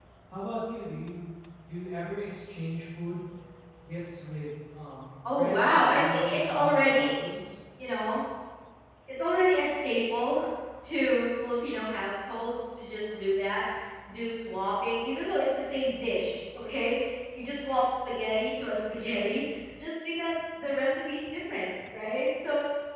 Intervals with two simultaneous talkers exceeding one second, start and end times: 5.3-7.1

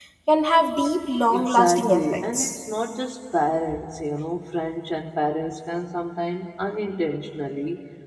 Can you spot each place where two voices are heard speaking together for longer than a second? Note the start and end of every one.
1.3-2.6

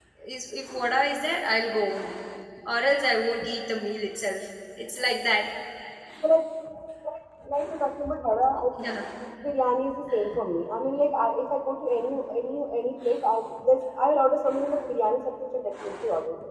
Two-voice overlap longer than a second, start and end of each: none

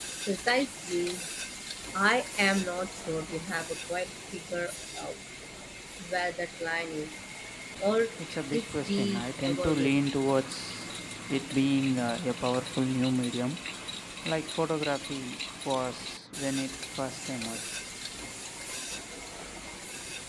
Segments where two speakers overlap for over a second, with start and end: 8.5-10.0

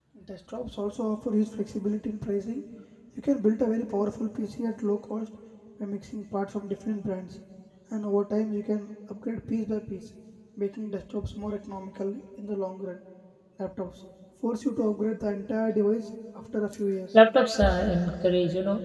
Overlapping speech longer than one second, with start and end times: none

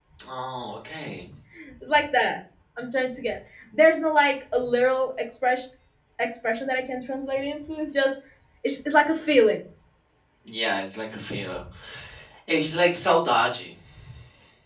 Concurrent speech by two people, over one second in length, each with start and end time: none

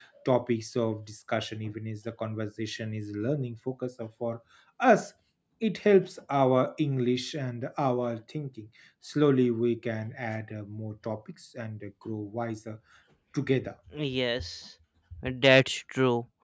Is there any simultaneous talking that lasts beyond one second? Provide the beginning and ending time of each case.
none

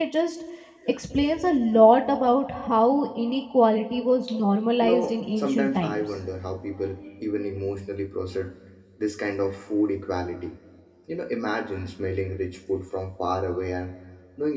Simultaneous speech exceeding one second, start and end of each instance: 4.8-6.0

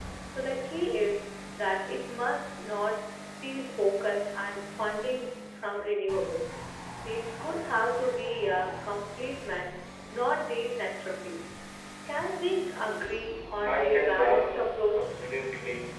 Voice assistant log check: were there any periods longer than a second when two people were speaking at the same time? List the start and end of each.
13.7-15.1

